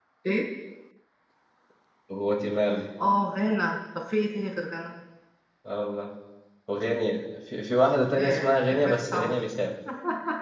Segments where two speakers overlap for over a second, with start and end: 8.2-9.4

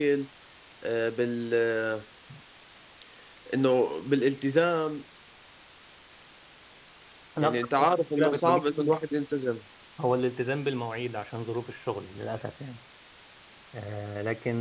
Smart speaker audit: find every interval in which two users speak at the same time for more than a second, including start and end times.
7.4-8.9

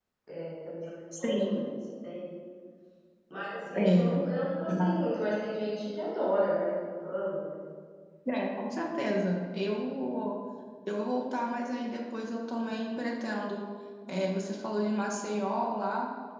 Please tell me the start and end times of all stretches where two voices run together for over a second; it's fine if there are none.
none

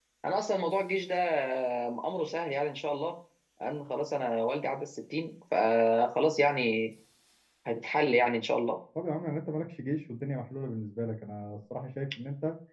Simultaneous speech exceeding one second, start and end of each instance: none

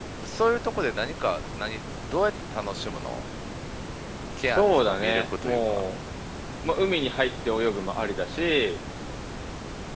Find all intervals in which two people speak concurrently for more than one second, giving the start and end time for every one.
4.4-5.8

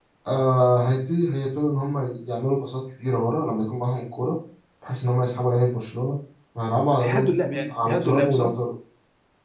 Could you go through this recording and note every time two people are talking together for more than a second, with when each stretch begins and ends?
7.0-8.5

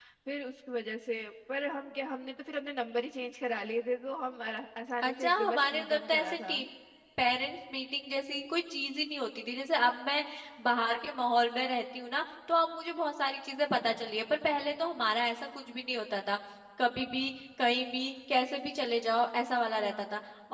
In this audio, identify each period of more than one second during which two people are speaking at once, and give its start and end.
5.0-6.6

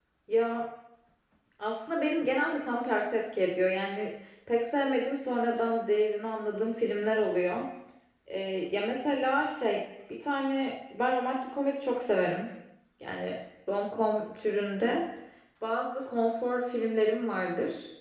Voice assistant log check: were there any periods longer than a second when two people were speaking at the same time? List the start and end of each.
none

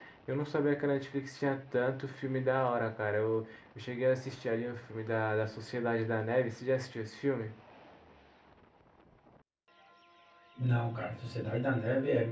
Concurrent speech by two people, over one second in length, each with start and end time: none

